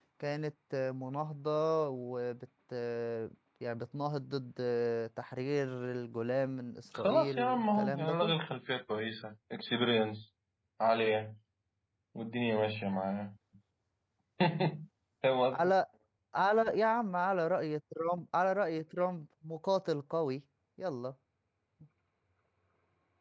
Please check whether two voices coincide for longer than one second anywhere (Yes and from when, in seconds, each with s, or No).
Yes, from 6.9 s